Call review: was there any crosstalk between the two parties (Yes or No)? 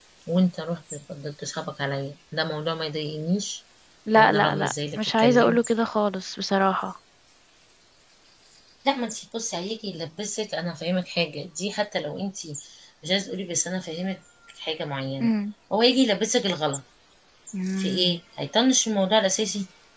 Yes